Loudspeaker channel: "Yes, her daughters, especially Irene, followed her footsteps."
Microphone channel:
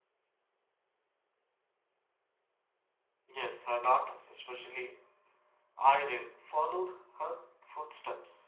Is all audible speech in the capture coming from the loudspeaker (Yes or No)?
Yes